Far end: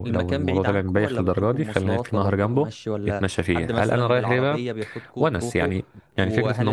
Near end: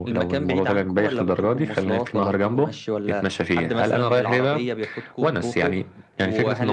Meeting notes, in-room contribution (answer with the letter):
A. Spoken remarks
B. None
B